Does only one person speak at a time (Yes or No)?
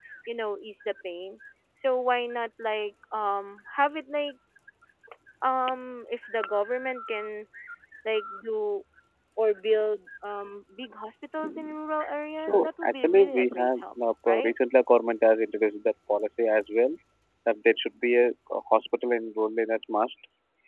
No